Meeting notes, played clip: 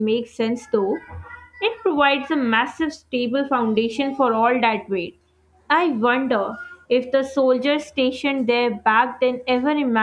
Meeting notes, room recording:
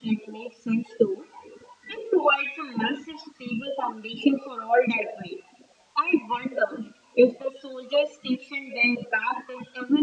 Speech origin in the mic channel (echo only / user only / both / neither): echo only